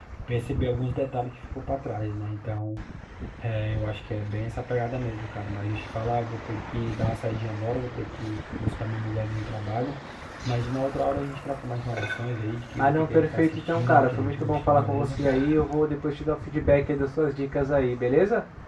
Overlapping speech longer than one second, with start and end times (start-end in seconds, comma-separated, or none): 12.8-15.2